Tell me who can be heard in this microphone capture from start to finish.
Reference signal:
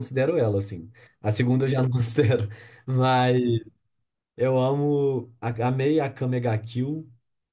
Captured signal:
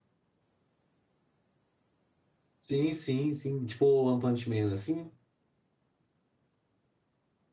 user only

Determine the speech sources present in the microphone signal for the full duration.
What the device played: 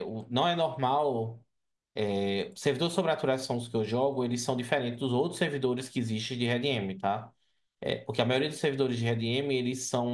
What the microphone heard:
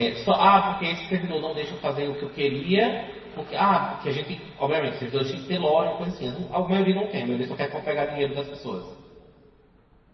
user only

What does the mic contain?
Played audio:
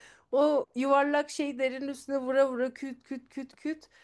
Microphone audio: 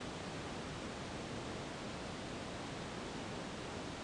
neither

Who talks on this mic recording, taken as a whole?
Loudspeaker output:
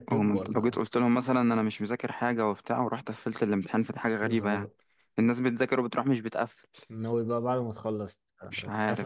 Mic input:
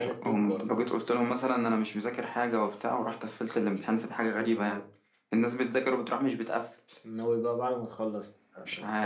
echo only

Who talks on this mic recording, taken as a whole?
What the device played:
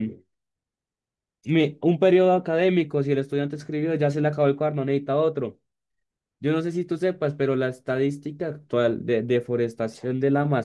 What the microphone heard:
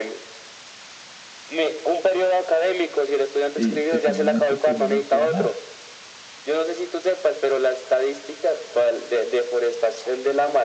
both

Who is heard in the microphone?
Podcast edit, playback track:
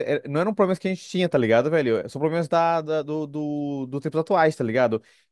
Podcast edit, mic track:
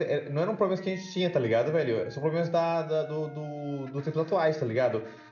echo only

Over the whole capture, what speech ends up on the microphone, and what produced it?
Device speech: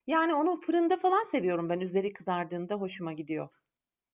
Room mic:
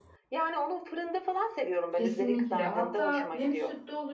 both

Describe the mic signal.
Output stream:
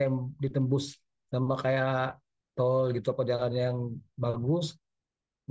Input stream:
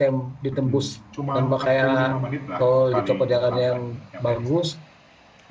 both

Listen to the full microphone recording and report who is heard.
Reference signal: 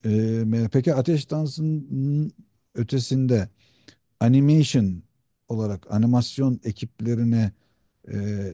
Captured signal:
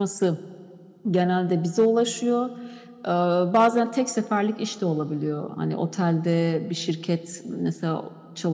user only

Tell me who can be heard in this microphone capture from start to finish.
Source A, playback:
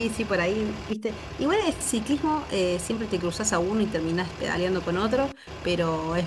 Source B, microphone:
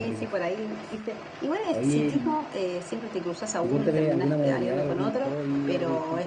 both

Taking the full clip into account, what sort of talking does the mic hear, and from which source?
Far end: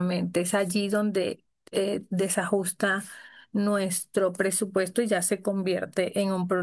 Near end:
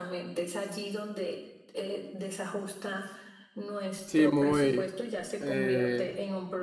both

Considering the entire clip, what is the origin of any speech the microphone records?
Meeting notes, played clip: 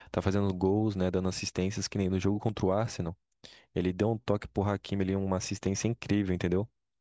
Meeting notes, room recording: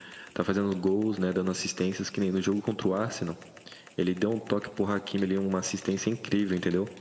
echo only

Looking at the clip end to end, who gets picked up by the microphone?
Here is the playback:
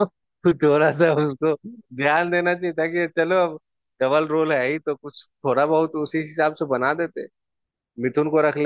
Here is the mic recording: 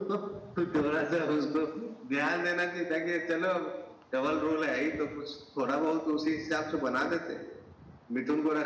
echo only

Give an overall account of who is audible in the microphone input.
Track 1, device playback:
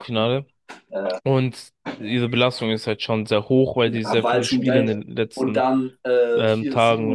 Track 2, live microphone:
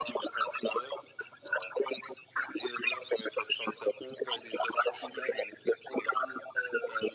echo only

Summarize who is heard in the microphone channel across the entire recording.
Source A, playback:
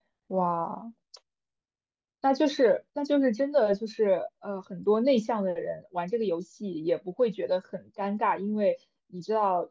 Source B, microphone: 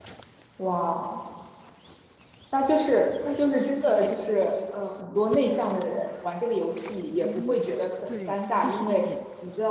both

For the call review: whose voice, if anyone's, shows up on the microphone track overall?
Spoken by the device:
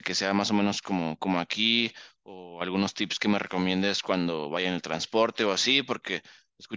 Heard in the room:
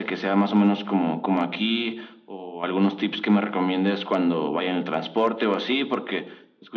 echo only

